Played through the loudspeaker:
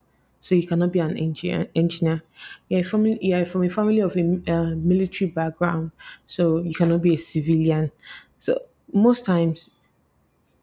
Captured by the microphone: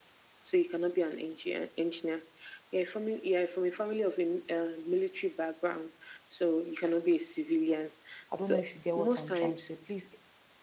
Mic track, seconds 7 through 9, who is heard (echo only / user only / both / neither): both